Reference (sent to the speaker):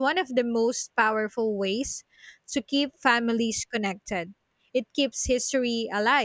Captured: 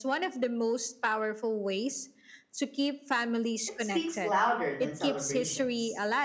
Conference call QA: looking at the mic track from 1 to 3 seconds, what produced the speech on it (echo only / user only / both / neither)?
echo only